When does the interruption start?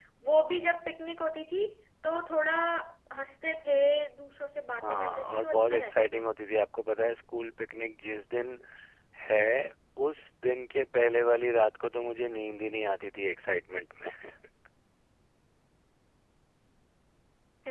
4.8 s

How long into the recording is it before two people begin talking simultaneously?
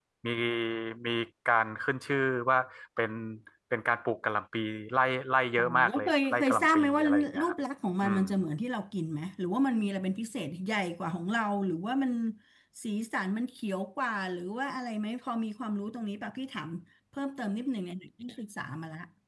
5.6 s

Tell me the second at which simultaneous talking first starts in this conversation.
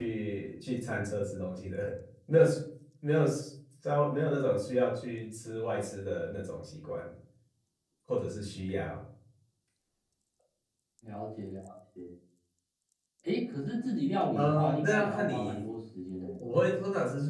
14.3 s

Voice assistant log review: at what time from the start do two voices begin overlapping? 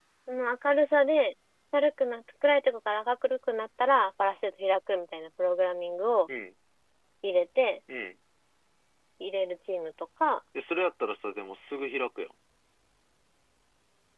none

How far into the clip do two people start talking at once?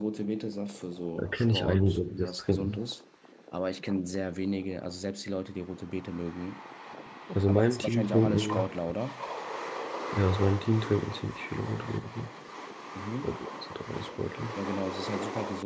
1.2 s

